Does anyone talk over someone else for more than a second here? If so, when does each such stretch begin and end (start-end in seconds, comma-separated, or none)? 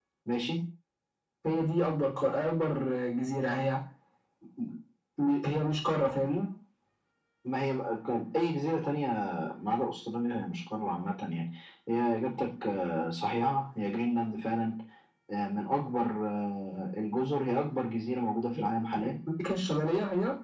none